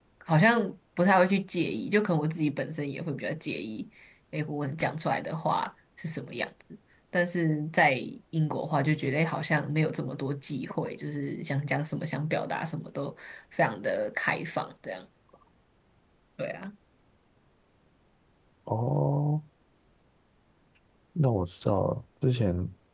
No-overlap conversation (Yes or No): Yes